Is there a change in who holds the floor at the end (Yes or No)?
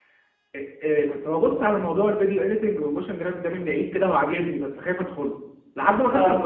No